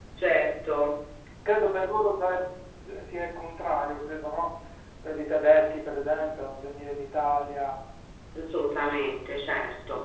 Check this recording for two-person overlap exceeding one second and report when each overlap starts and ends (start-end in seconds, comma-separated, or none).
none